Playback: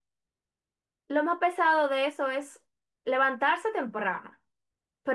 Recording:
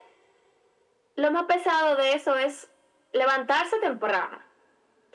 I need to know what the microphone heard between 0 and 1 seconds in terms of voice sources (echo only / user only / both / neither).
neither